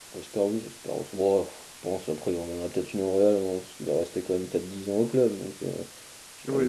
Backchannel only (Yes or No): No